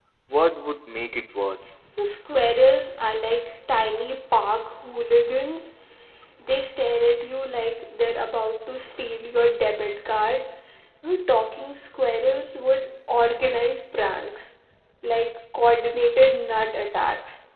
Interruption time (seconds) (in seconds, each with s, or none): none